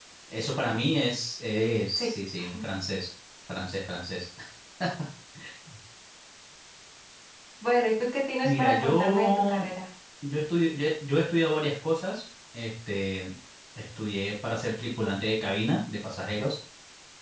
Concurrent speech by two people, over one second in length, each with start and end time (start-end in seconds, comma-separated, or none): 8.4-9.7